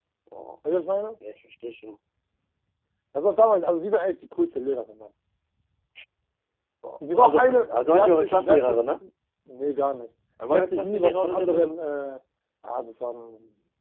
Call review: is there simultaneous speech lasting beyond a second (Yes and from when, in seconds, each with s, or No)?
Yes, from 7.1 s